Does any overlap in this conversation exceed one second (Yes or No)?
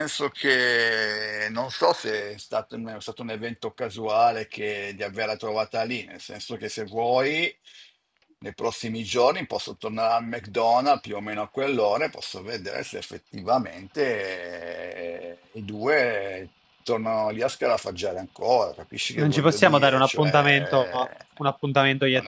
Yes